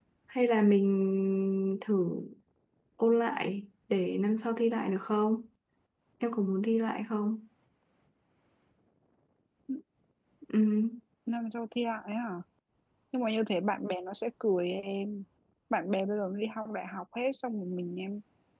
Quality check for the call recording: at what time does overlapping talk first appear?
none

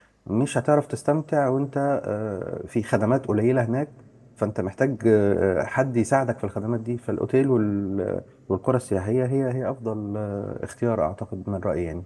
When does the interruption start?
none

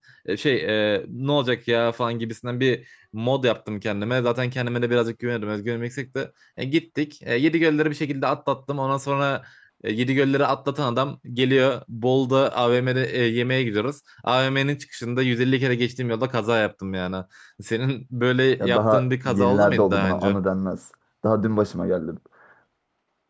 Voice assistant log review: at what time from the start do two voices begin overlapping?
18.6 s

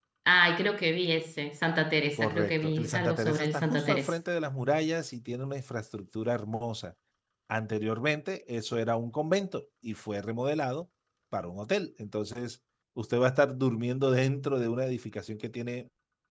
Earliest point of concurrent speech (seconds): 2.2 s

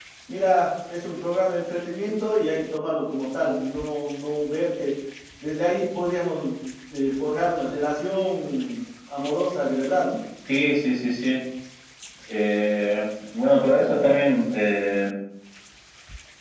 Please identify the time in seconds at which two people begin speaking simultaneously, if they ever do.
none

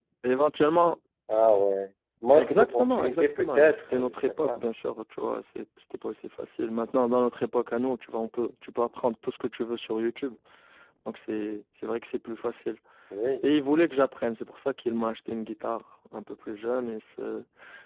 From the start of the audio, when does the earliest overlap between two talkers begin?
2.3 s

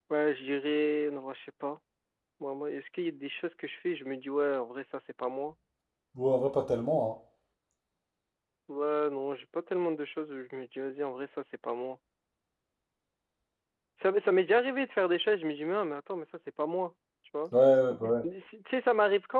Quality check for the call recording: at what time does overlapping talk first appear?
none

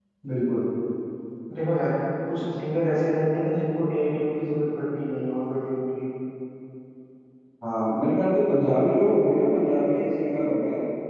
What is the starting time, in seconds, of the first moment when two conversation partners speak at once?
none

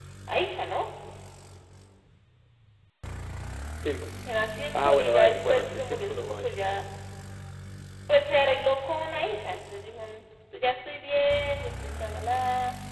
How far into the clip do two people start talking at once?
4.7 s

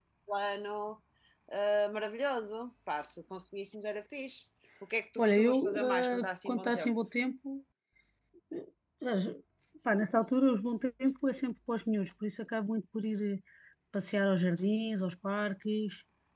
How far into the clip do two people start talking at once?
5.2 s

